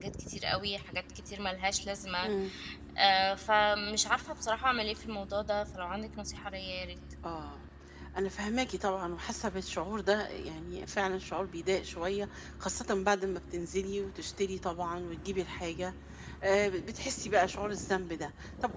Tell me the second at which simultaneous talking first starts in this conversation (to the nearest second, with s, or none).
none